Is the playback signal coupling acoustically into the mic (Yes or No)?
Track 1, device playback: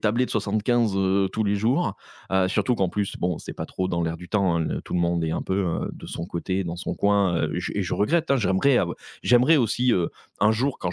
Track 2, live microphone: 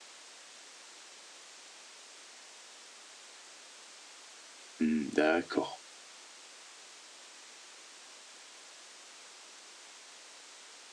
No